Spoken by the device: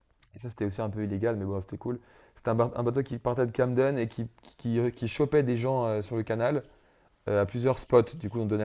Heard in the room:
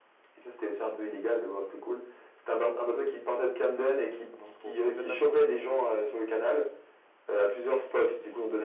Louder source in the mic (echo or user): echo